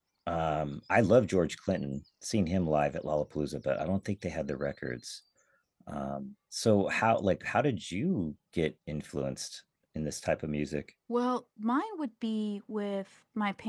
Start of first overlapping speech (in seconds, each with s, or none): none